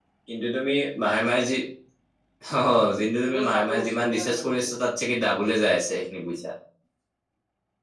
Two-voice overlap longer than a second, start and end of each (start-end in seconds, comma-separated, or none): 3.2-4.7